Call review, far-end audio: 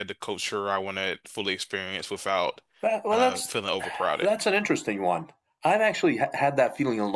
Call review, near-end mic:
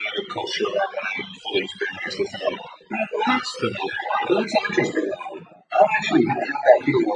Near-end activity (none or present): none